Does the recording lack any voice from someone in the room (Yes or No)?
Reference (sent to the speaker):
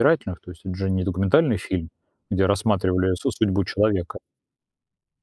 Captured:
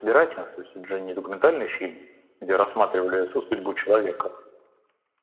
Yes